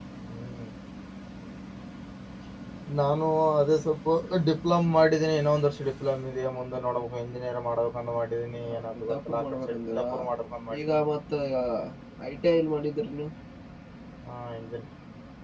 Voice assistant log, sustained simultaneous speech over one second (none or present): present